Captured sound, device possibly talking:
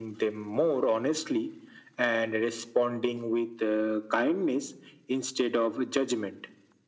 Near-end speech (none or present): none